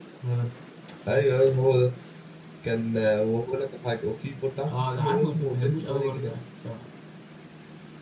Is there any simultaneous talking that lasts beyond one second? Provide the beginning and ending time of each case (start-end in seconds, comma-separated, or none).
4.7-6.3